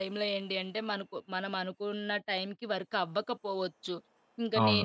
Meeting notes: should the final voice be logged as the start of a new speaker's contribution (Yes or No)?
No